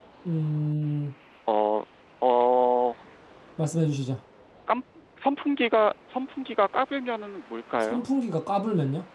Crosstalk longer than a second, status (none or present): none